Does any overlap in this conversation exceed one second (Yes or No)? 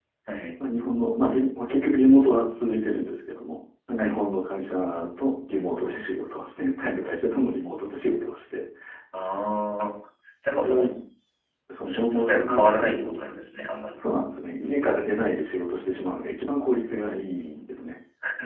Yes